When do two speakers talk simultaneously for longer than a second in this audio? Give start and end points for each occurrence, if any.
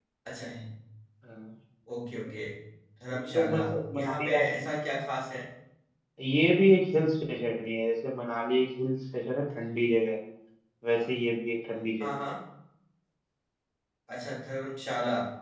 3.4-4.7

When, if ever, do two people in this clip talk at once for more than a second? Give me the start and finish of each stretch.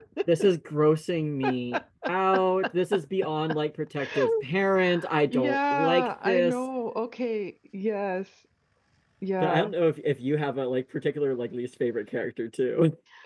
5.3-6.6

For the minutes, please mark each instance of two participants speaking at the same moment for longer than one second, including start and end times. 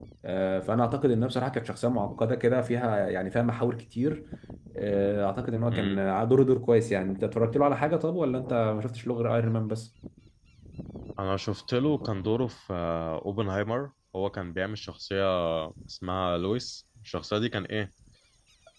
none

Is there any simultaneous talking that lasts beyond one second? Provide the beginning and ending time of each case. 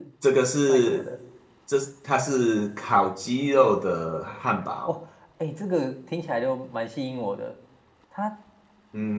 none

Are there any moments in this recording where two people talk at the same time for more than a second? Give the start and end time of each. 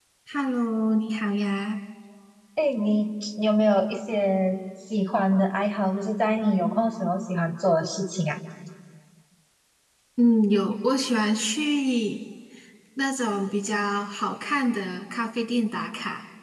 none

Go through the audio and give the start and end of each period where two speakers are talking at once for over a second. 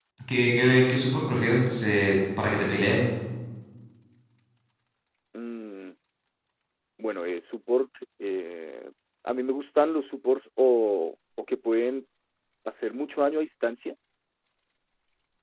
none

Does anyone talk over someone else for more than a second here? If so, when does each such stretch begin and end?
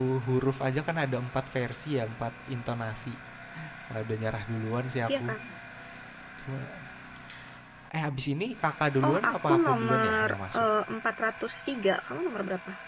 9.1-10.7

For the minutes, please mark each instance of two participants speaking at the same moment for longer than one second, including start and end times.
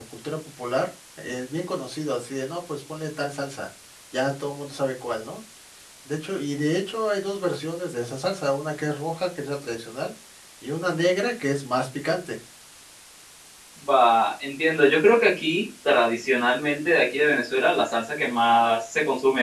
none

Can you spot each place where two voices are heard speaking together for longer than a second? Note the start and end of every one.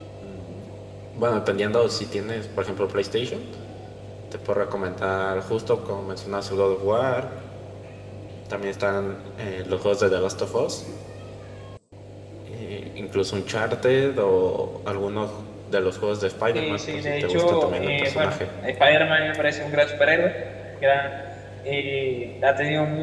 16.5-18.4

